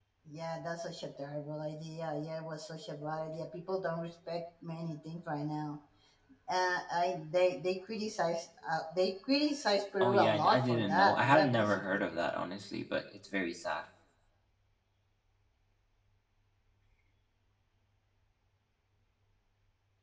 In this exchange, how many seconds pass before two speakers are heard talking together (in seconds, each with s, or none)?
10.0 s